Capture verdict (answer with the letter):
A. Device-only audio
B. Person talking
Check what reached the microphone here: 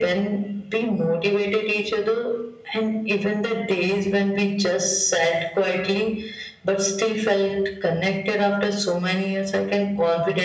A